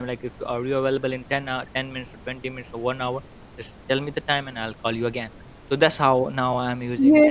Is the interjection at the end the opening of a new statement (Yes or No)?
Yes